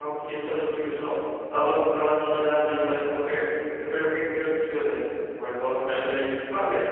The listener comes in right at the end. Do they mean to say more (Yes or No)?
No